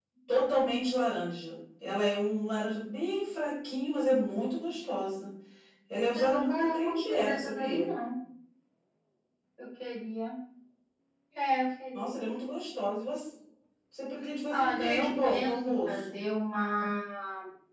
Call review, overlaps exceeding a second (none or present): present